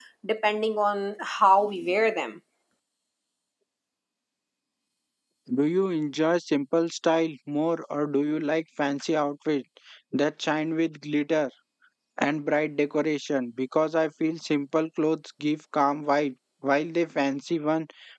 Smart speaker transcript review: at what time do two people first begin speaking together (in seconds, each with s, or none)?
none